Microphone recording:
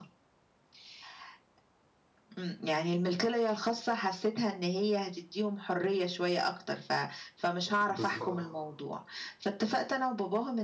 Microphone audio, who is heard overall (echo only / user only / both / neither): both